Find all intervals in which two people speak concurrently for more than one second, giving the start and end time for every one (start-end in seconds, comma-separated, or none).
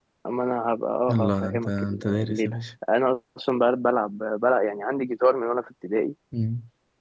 1.1-2.6